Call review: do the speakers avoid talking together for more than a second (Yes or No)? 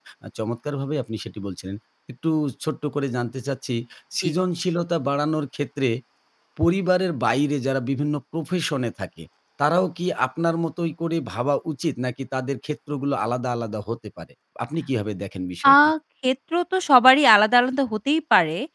Yes